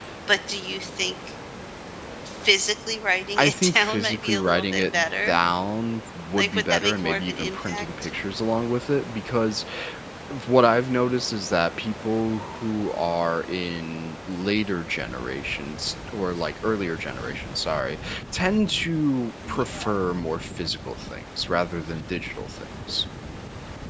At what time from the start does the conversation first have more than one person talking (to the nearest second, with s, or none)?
3 s